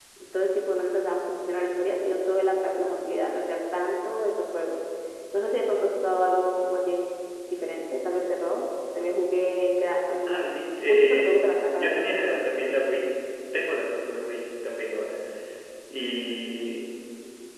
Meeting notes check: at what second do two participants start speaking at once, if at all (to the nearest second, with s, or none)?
10 s